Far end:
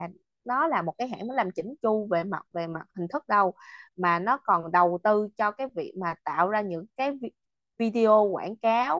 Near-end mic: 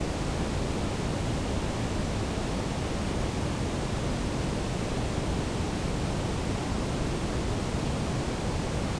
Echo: none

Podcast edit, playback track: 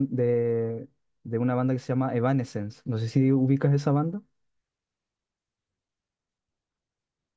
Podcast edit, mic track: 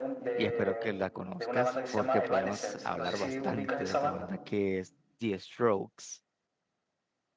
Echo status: present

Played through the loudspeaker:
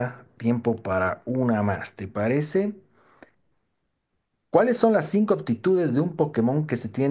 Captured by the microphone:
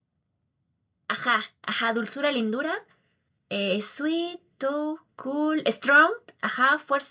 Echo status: none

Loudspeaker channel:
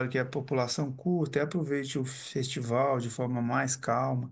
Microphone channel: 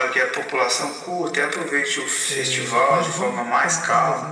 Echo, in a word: present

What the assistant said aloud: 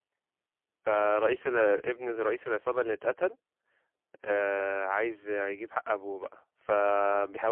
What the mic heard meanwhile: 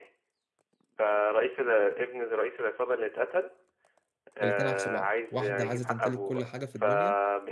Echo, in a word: present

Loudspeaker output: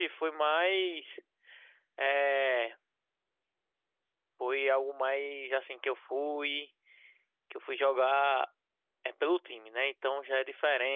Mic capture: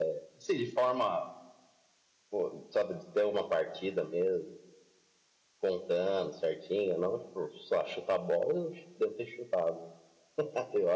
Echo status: none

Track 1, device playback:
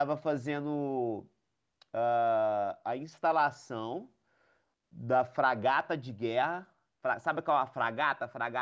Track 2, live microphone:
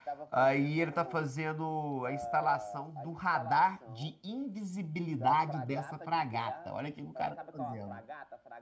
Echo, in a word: present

